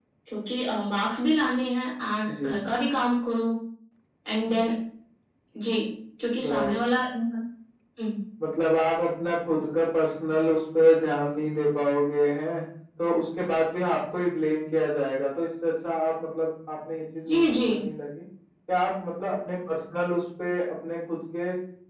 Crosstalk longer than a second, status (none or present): none